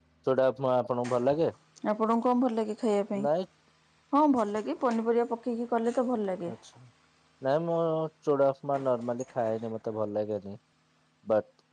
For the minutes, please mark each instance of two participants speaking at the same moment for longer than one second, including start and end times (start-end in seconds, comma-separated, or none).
none